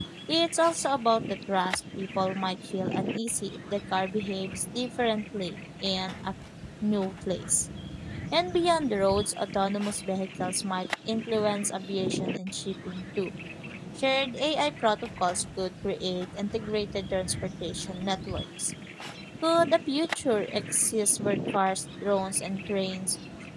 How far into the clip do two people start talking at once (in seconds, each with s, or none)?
none